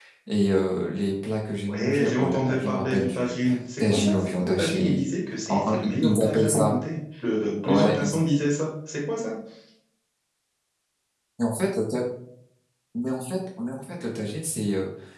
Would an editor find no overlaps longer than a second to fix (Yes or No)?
No